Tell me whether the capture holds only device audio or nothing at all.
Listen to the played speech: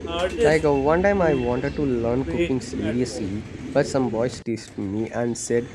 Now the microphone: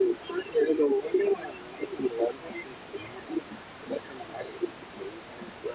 Yes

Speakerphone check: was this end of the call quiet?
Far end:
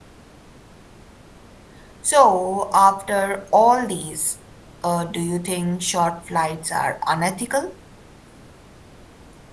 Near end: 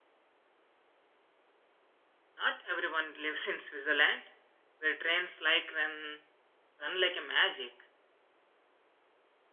No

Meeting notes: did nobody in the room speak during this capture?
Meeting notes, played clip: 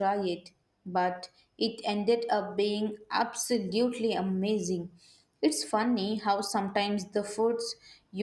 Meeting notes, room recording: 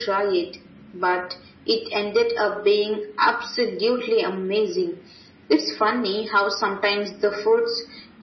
Yes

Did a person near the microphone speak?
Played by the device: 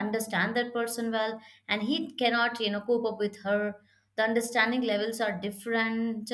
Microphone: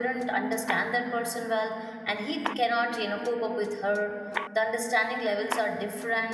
No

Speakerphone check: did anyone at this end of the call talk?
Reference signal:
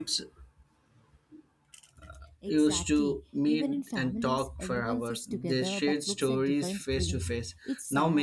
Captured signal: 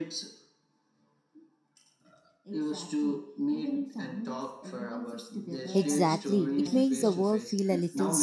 Yes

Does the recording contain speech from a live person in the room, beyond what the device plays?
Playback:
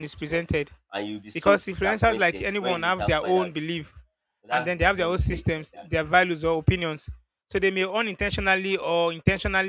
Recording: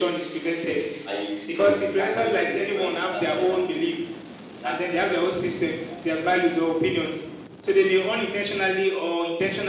No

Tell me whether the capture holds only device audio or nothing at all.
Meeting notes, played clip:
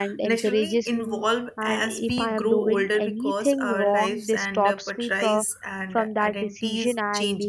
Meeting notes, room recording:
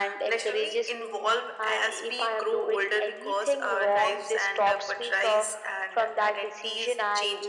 Yes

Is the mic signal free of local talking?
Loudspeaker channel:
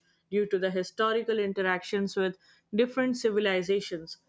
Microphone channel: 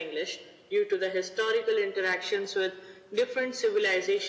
Yes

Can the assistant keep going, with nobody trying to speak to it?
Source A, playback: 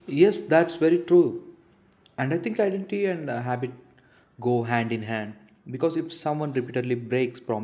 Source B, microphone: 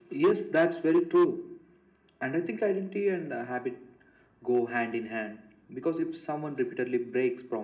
Yes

